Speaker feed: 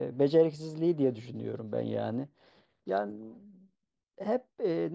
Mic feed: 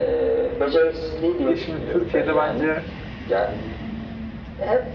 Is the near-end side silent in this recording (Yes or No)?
No